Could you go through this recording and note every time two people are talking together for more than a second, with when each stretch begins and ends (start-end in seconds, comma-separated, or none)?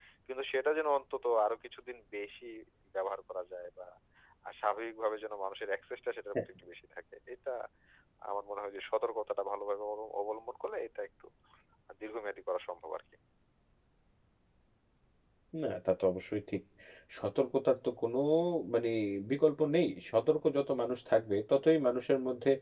none